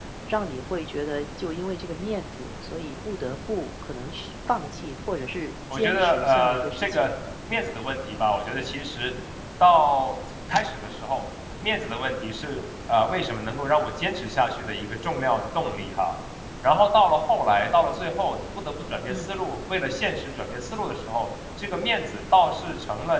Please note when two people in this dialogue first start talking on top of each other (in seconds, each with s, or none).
5.7 s